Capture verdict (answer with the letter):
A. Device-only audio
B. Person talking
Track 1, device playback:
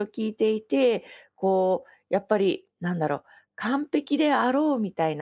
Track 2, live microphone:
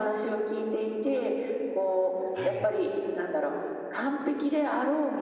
B